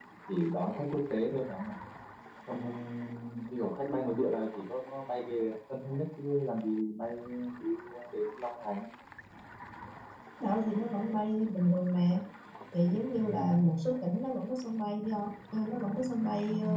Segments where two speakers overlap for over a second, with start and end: none

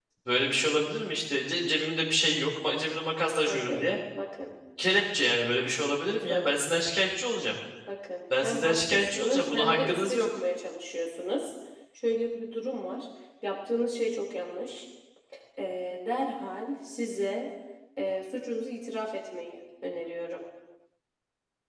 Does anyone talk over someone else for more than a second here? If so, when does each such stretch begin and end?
8.4-10.3

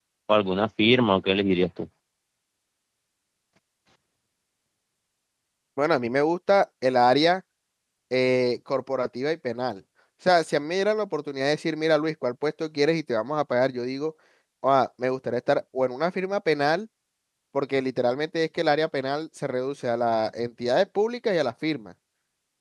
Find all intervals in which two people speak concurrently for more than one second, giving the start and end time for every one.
none

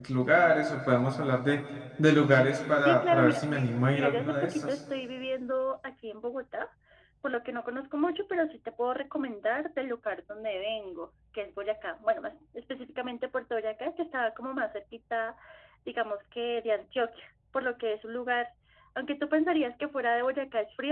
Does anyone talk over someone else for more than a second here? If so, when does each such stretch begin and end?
2.8-4.7

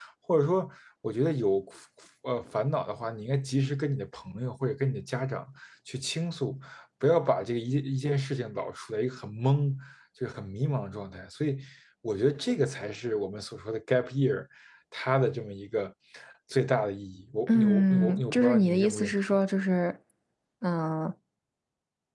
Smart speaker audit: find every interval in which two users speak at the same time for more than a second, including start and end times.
17.5-19.1

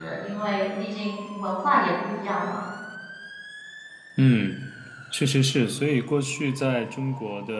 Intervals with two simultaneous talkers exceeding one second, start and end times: none

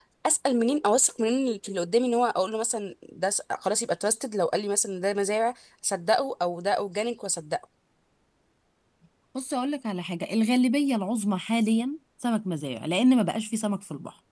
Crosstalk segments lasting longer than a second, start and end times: none

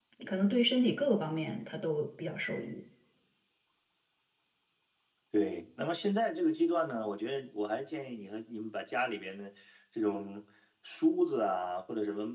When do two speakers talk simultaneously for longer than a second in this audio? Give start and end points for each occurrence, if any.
none

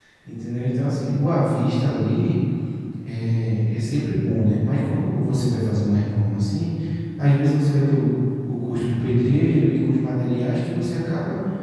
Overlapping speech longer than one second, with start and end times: none

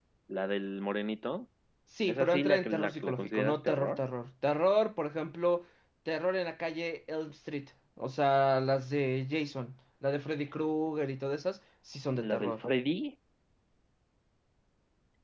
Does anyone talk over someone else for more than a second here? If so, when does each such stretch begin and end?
2.1-4.0

